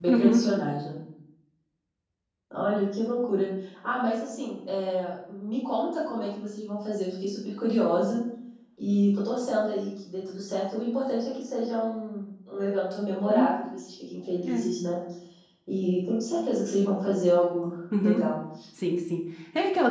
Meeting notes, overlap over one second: none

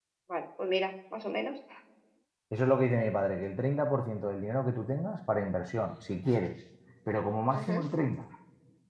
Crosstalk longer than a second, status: none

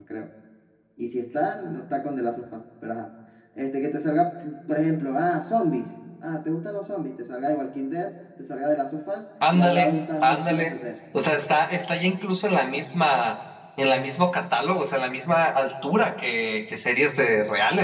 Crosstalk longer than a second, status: present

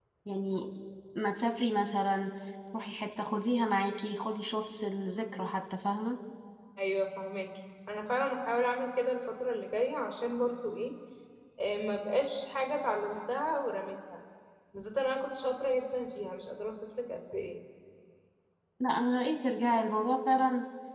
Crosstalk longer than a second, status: none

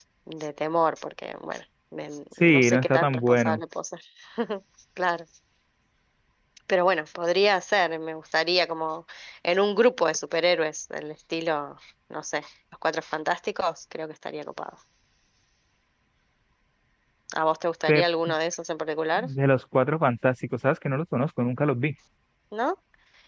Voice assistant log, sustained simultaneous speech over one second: present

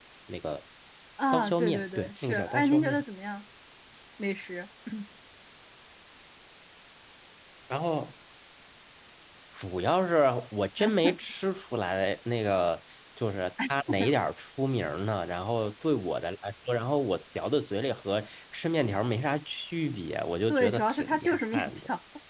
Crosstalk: present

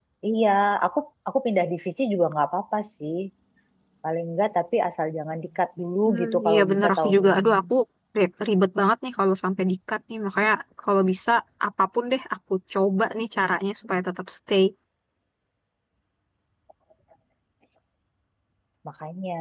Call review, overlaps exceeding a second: present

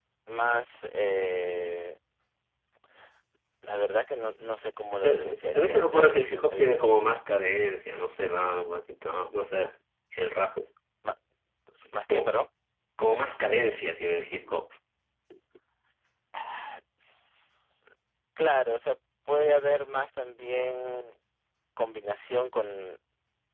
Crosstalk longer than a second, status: present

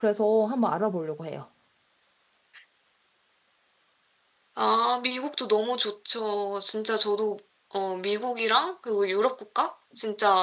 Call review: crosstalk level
none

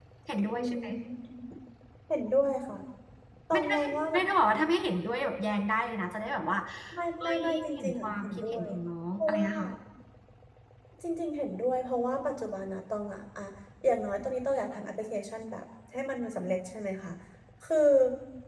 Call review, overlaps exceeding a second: present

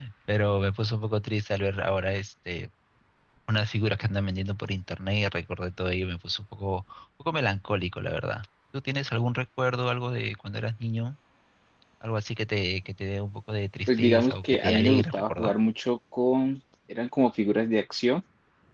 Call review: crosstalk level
present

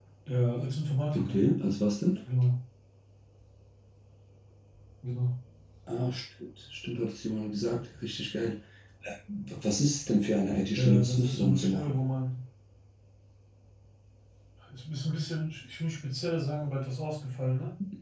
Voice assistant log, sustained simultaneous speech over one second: present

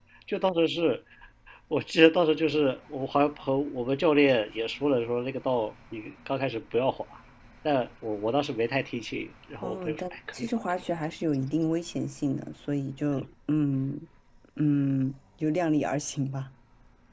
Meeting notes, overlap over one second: present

